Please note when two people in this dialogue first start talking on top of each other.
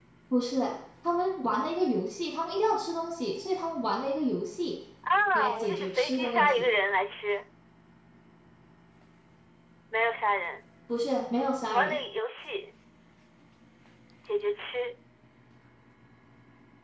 5.3 s

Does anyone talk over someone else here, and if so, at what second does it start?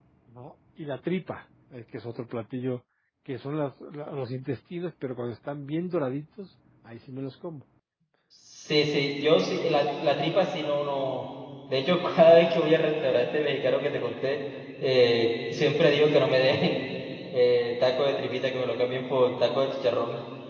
none

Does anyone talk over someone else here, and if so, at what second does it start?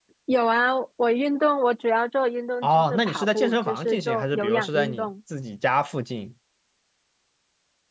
2.6 s

